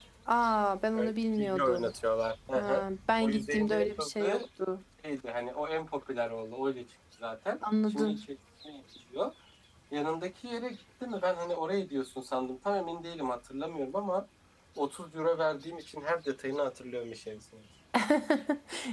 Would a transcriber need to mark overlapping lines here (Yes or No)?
Yes